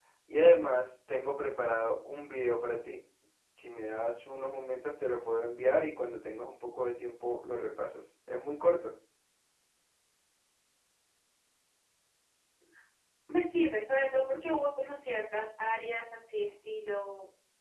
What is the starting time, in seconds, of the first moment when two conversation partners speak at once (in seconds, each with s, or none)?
none